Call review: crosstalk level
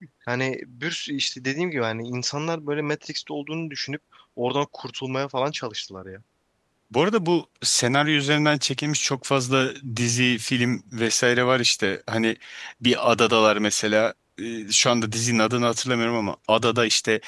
none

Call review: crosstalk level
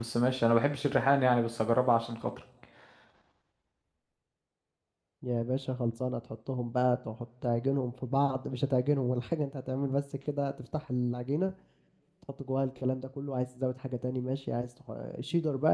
none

